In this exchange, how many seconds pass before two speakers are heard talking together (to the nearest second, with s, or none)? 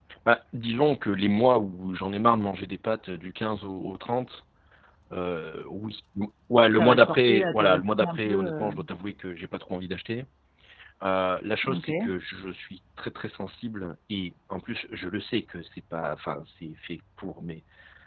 7 s